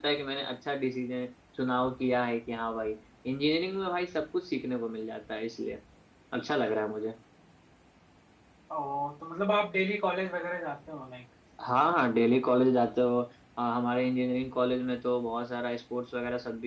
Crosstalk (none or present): none